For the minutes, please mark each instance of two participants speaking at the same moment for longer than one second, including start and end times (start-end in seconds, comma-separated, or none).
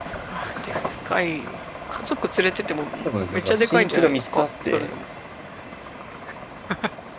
3.3-4.9